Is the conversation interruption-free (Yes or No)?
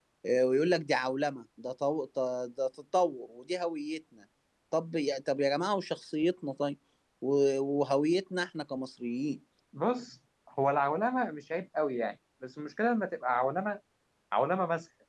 Yes